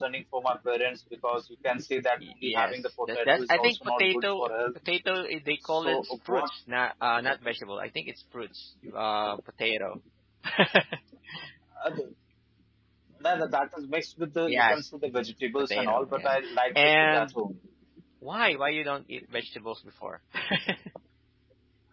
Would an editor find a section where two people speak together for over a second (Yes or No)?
Yes